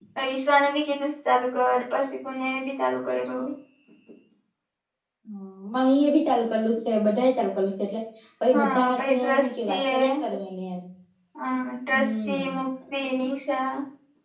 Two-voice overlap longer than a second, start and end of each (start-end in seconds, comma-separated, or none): 8.5-10.0